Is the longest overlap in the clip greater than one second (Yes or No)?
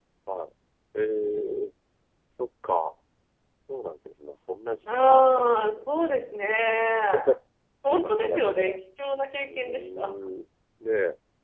Yes